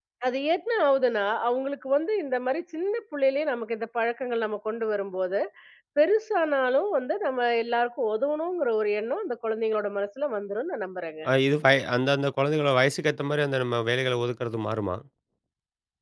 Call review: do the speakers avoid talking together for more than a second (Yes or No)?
Yes